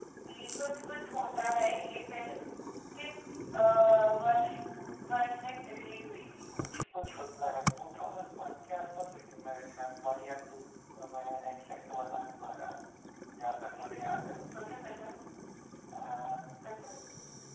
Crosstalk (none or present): none